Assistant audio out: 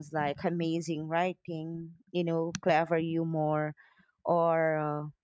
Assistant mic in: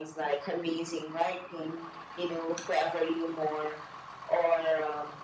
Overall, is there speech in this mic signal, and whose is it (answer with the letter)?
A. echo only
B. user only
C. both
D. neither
A